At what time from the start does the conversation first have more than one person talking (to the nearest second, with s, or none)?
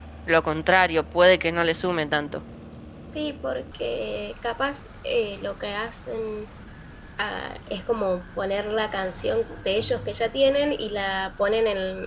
none